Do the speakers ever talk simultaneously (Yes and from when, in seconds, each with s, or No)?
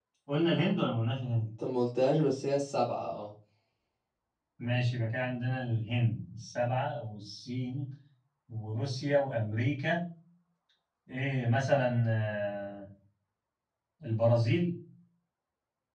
No